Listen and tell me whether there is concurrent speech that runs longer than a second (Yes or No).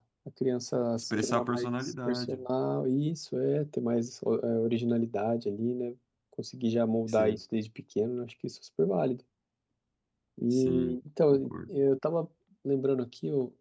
Yes